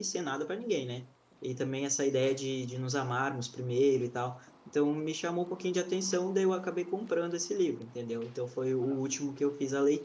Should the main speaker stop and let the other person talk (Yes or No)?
No